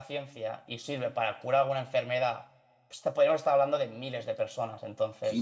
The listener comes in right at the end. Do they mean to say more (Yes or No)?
Yes